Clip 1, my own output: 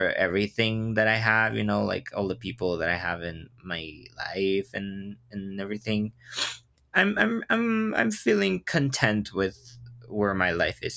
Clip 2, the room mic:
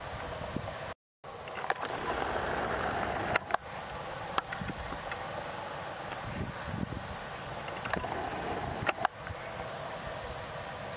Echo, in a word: none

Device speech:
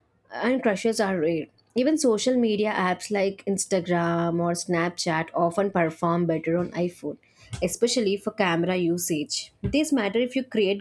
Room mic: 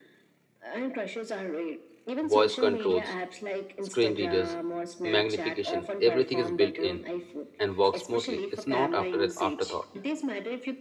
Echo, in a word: present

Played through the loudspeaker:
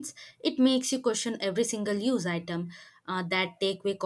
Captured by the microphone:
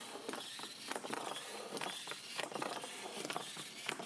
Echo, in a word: none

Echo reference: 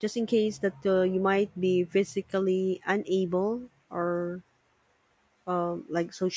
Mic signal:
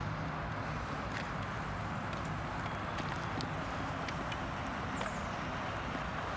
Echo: none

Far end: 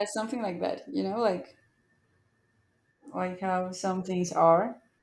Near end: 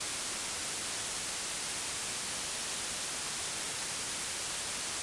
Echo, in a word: none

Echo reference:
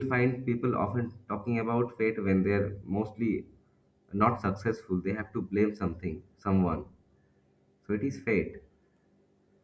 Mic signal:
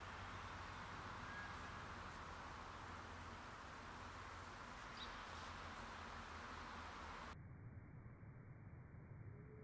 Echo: none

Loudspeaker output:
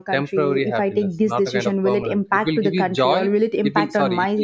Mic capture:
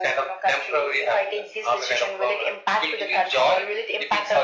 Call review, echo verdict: present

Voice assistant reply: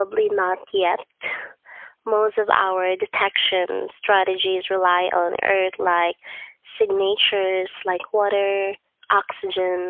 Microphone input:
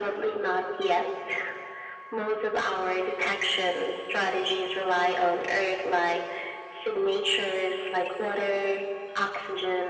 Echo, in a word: present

